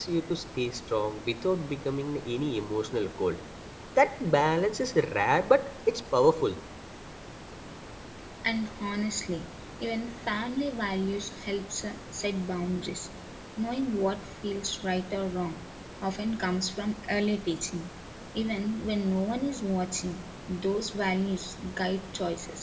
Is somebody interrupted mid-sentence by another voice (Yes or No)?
No